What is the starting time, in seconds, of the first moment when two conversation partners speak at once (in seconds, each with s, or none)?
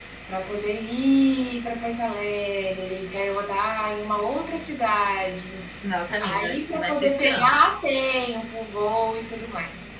6.2 s